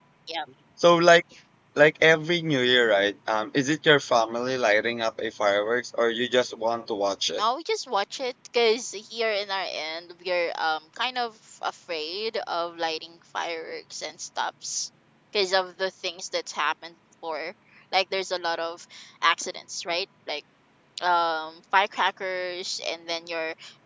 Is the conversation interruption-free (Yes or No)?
Yes